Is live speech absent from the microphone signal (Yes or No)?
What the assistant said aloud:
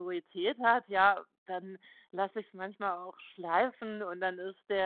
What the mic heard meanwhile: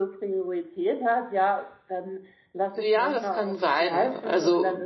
No